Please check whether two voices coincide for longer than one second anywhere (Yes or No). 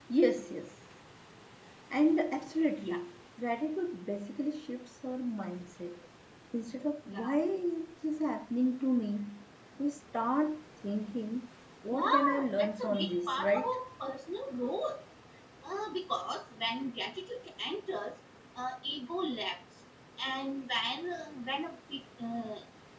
Yes